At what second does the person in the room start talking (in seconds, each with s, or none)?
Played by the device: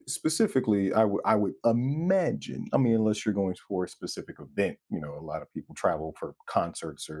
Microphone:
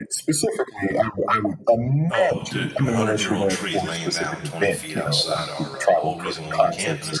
2.1 s